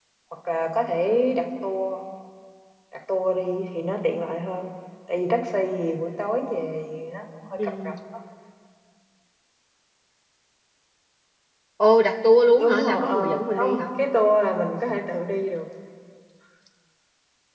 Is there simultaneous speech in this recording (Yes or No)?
Yes